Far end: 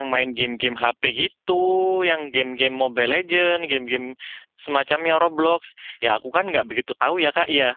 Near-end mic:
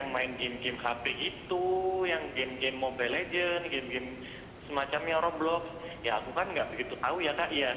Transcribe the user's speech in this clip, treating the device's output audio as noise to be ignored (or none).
none